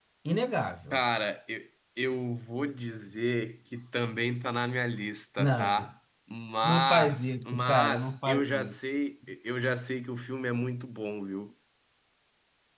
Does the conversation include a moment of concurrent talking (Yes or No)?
Yes